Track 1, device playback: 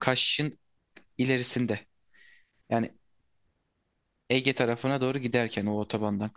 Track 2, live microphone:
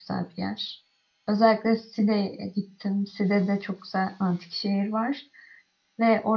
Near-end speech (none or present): present